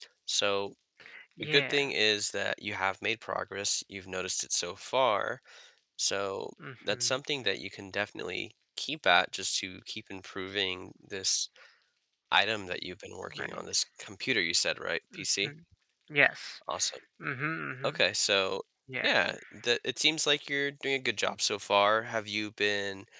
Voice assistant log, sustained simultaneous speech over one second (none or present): none